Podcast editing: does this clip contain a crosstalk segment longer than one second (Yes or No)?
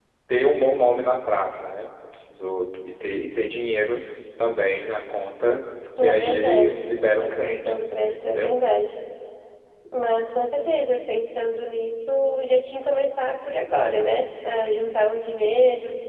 Yes